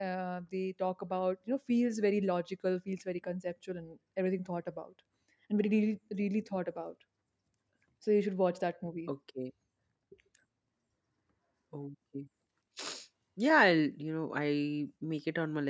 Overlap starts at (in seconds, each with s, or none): none